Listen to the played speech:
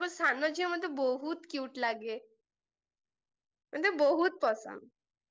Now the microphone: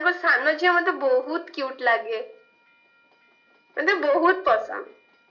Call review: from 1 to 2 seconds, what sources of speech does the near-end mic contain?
echo only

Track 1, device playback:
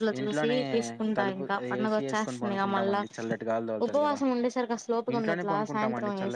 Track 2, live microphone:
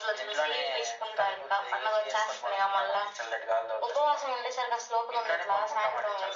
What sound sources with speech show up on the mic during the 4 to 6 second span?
echo only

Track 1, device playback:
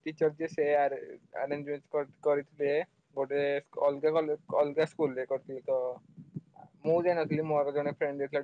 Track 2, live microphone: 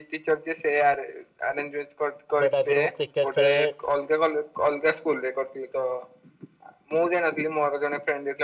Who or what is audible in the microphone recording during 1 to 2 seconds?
echo only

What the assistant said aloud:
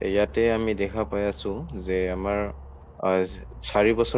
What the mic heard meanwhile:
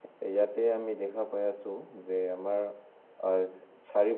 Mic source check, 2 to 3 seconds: echo only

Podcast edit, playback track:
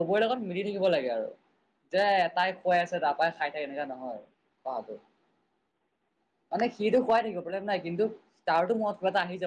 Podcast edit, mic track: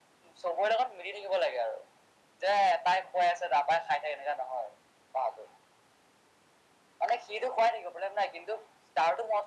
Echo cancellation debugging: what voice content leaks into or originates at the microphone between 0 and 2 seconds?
echo only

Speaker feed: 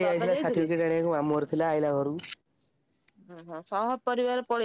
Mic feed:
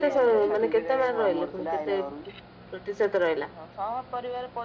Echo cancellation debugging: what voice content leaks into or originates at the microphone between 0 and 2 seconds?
both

